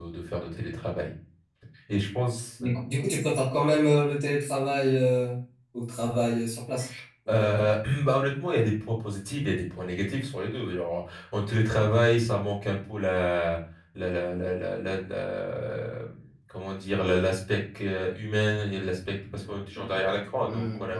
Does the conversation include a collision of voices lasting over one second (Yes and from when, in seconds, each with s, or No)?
No